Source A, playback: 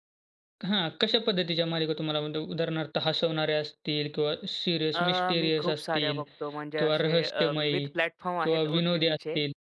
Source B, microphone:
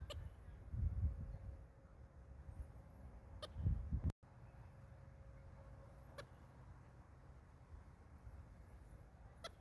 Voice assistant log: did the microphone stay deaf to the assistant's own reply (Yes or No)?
Yes